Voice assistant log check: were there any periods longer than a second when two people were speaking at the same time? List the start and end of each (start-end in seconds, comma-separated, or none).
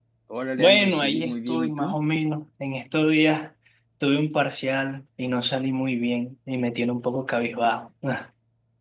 0.6-1.9